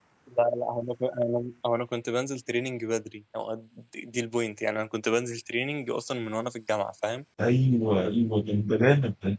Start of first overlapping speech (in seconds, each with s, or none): none